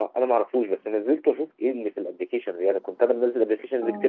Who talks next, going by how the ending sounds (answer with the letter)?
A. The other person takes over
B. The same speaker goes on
B